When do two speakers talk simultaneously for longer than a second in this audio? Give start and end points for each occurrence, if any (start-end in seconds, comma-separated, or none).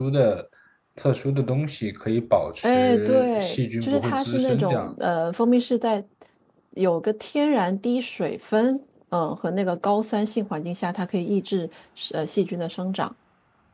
2.6-4.9